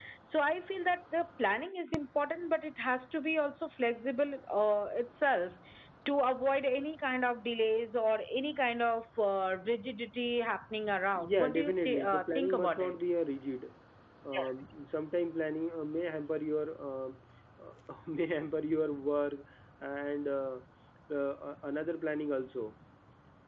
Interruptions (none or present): present